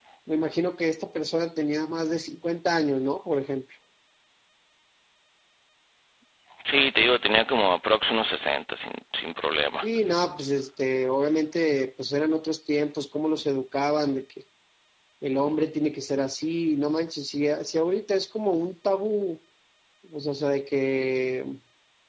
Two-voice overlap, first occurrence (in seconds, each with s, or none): none